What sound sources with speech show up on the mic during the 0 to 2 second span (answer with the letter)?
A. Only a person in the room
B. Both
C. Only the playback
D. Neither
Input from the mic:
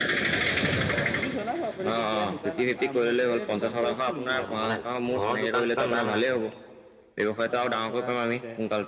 C